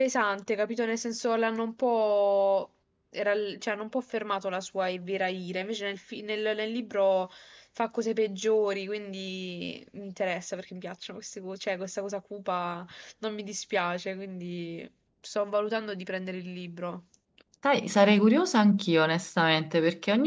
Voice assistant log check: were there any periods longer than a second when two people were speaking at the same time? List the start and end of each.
none

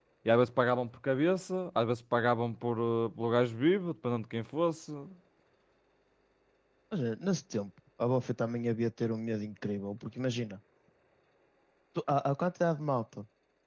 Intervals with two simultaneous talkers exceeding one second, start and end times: none

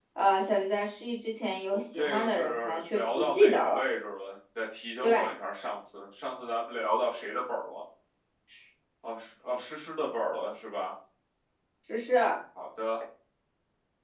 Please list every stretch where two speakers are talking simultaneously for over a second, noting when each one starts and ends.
1.9-3.8

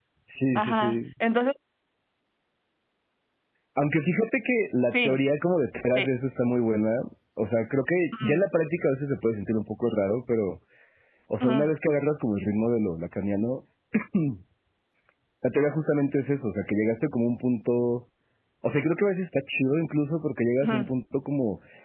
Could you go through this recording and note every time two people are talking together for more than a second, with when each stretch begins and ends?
none

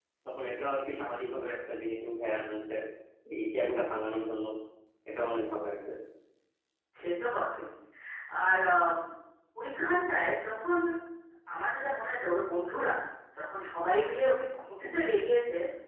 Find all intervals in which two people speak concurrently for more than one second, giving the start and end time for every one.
none

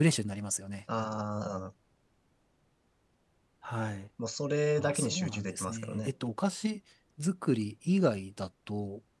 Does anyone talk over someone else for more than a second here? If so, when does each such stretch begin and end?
4.8-6.1

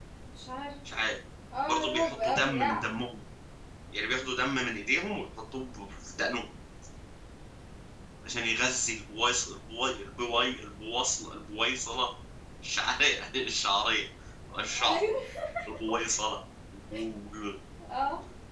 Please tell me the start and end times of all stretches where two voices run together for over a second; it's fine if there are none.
1.7-2.9

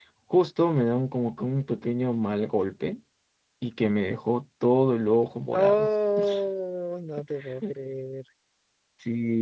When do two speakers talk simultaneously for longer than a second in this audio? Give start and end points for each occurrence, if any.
none

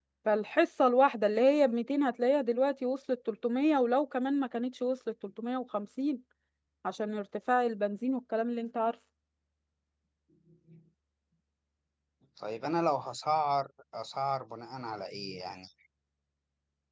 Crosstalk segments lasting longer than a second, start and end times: none

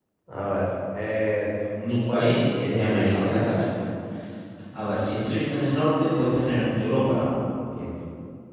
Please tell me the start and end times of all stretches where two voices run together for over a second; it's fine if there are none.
1.9-3.6

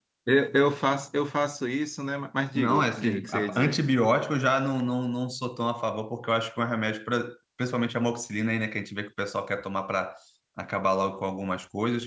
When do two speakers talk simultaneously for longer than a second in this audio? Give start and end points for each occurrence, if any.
2.6-3.8

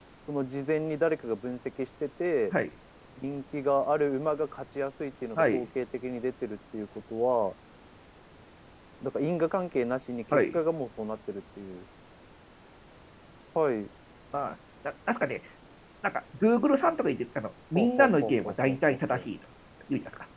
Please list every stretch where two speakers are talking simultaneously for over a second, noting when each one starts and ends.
17.8-19.2

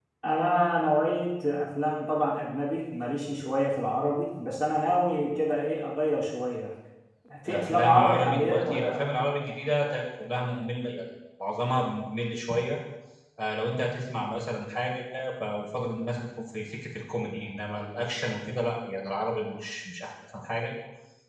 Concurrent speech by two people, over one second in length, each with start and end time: 7.5-8.9

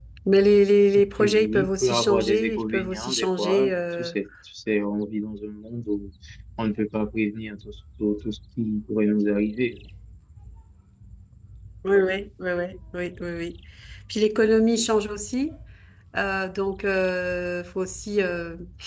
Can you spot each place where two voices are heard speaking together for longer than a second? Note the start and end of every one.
1.2-4.2

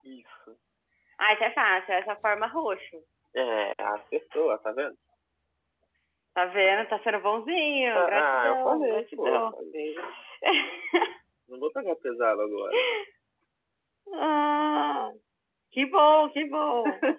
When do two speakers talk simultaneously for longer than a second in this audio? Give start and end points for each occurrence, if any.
8.0-9.5

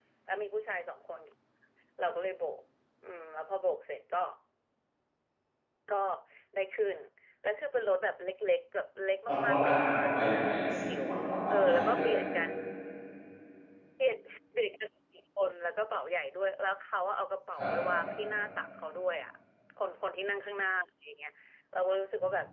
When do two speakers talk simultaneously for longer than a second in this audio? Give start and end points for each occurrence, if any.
9.3-10.9

